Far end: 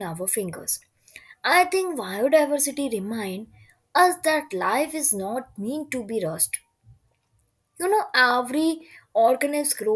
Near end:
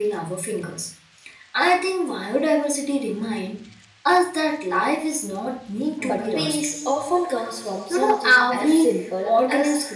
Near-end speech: present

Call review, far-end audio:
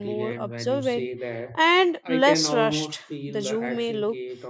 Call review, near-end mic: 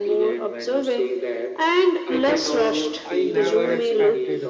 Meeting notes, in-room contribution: present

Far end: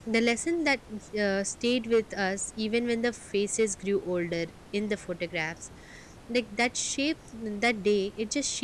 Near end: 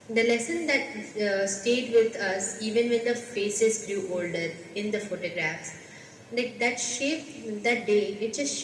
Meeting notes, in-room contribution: none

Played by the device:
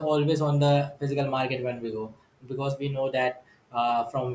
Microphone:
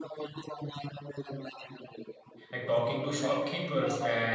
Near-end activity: present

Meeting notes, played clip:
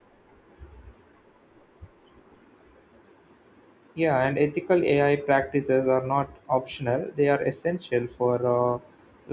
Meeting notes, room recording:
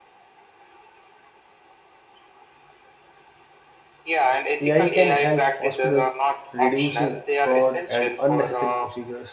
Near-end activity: present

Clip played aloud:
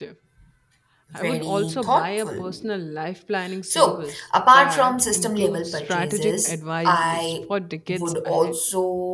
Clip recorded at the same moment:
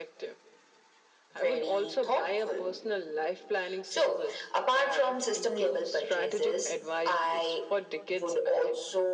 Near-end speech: none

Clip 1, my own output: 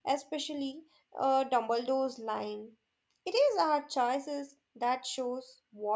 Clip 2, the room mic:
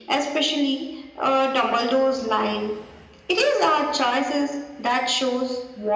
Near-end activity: none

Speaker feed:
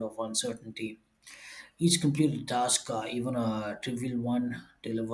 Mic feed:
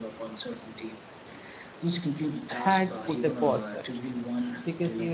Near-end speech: present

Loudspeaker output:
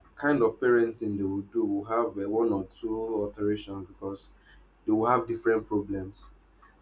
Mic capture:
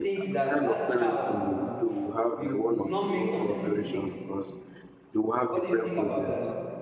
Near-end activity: present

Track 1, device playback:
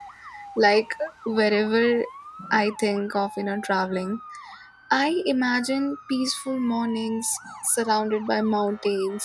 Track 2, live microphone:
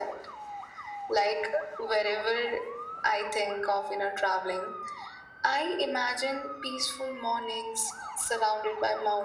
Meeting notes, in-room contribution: none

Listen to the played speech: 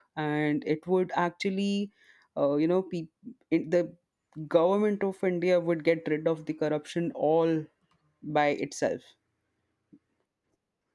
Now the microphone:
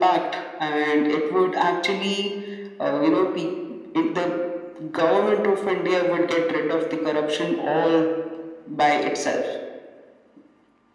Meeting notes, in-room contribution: none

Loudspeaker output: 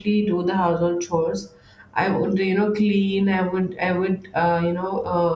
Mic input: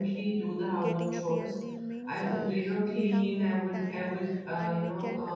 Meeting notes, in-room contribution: present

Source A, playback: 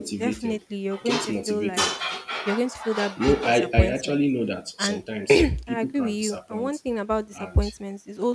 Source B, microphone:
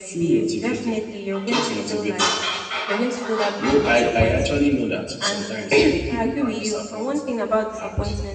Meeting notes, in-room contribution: none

